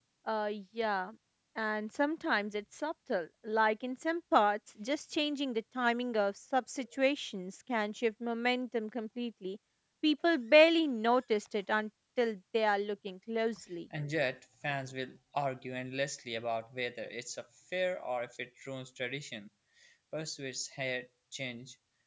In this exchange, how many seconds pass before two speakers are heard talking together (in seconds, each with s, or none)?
none